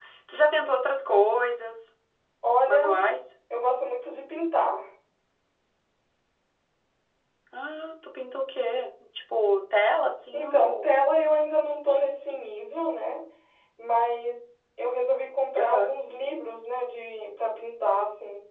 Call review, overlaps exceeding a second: none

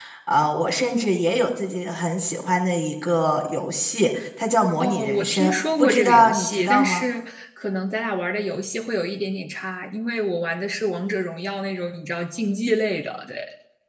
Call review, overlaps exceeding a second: present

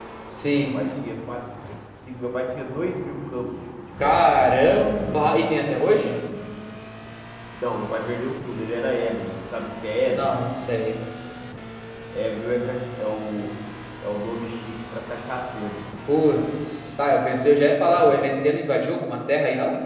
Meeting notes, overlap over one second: none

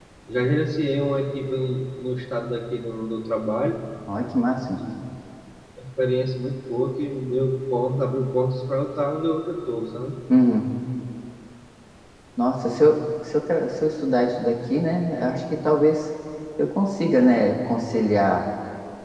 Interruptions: none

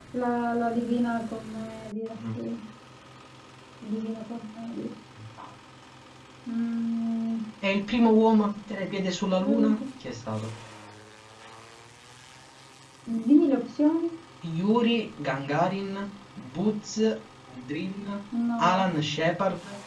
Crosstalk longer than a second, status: none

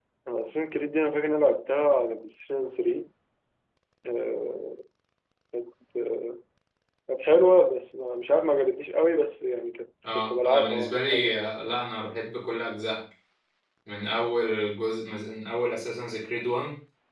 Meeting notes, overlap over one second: present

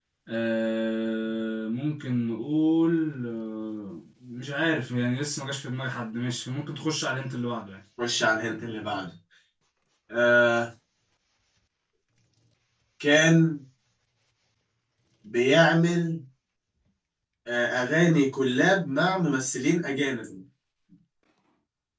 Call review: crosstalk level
none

